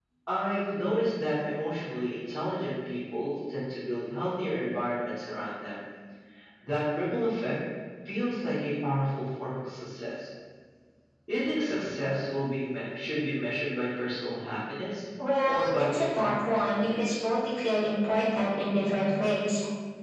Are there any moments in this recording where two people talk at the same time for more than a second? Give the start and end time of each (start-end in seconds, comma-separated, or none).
15.5-17.2